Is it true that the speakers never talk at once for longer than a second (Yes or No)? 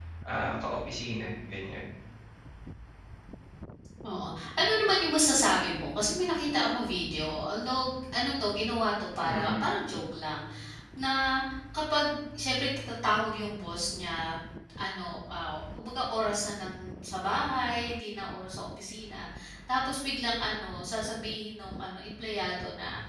Yes